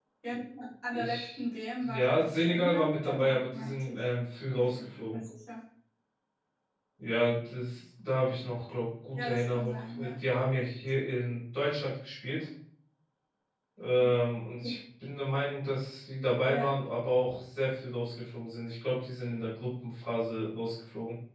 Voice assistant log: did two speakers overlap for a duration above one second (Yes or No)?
Yes